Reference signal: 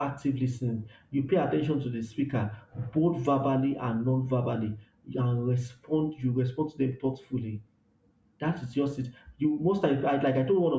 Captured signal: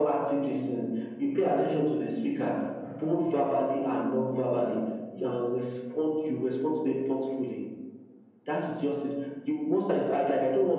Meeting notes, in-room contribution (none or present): none